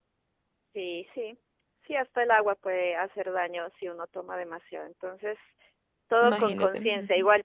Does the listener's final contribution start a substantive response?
No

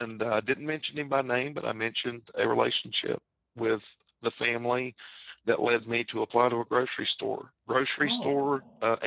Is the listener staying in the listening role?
Yes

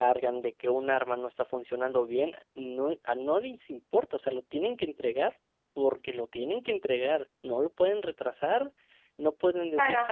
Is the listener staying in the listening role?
No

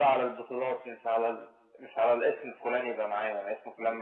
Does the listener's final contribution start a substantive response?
No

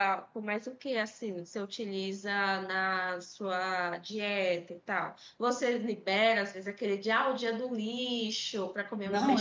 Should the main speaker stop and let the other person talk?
Yes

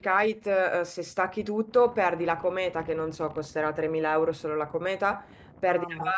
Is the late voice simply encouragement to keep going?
Yes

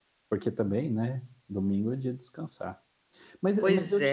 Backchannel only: Yes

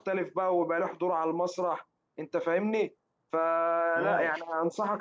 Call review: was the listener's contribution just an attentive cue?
Yes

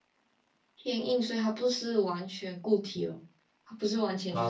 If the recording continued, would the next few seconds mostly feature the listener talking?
Yes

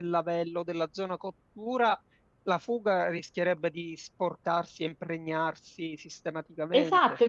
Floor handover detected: Yes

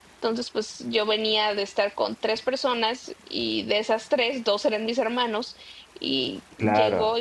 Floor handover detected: Yes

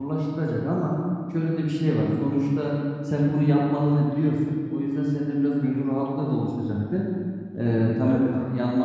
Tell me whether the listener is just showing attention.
Yes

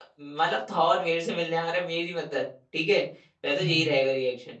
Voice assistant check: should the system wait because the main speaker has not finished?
Yes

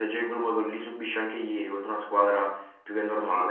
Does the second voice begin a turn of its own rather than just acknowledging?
Yes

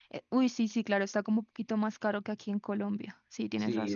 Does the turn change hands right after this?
Yes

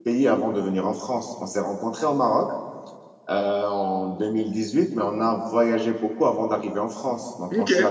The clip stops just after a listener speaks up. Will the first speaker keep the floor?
Yes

